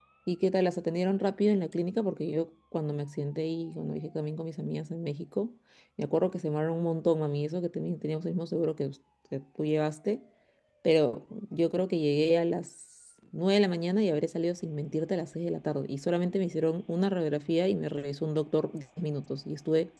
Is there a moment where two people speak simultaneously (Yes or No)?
No